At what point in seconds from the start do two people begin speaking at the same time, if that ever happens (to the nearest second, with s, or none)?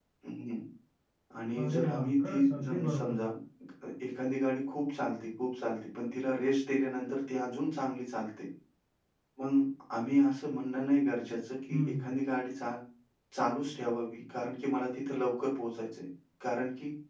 2 s